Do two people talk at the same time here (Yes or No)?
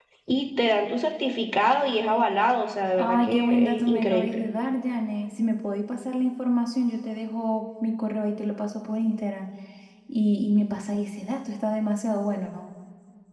Yes